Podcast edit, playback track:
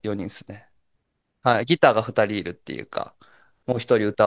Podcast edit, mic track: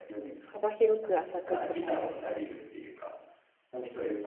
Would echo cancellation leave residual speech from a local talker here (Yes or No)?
Yes